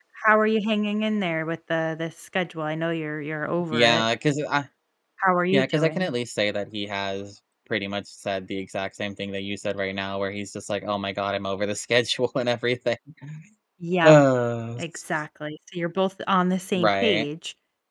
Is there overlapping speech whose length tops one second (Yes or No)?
No